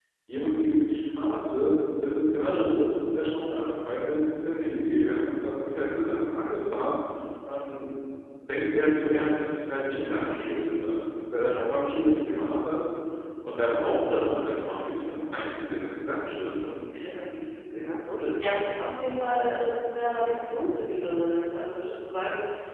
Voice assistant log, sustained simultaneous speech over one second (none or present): none